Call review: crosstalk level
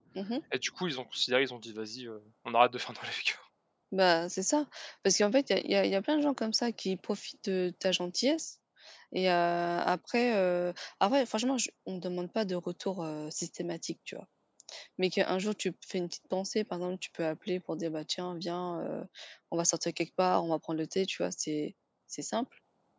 none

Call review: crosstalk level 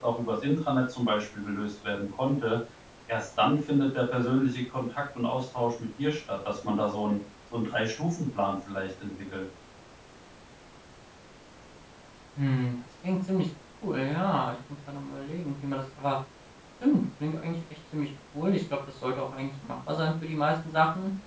none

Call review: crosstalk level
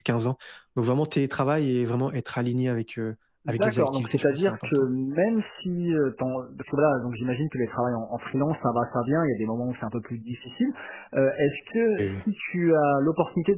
present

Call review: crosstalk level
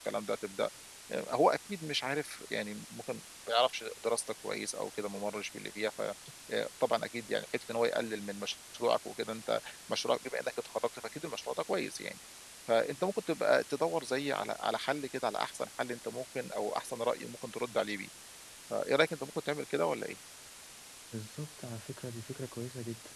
none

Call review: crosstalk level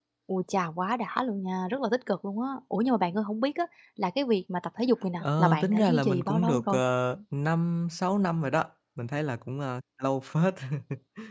present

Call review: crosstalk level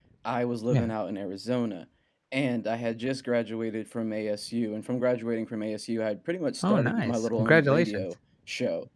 present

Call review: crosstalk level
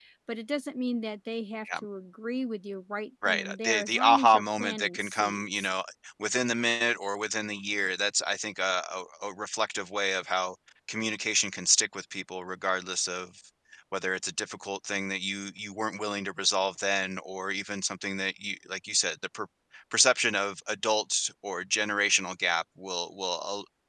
present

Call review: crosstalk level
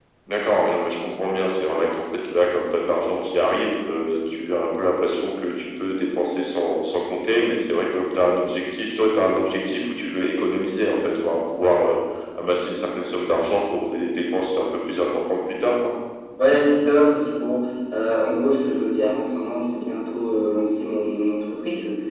none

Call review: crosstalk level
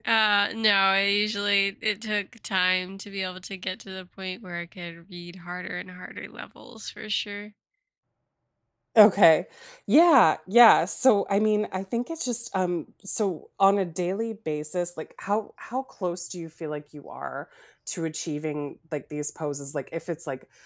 none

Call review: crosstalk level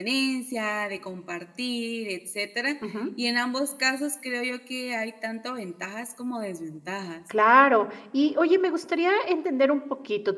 none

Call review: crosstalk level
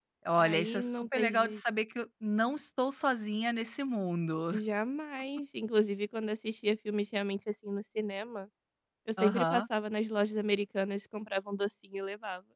present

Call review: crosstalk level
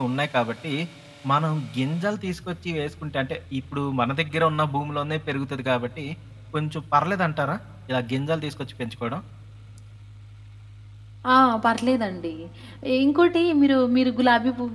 none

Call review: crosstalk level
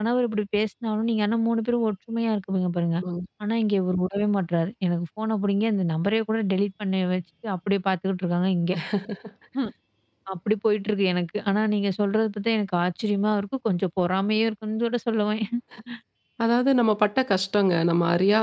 none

